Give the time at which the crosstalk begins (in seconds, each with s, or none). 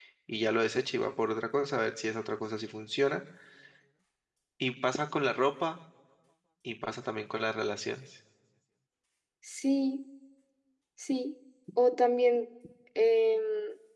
none